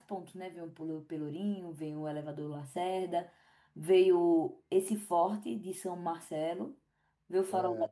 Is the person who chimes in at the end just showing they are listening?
Yes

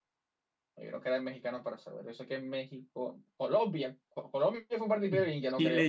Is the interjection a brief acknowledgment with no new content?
No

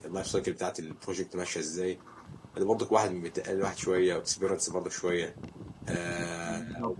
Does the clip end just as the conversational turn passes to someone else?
No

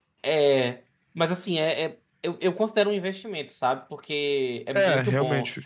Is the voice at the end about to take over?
No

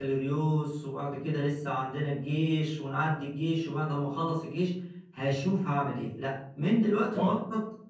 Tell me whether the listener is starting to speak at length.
No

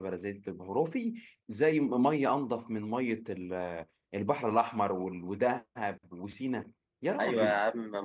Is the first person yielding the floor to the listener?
Yes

